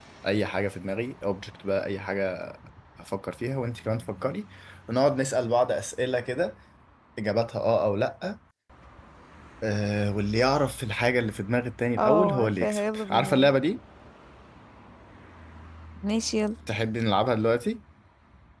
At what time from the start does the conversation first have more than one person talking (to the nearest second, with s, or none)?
12 s